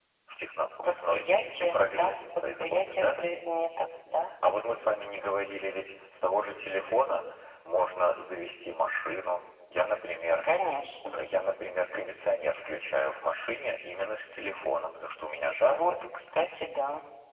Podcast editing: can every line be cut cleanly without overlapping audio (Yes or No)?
No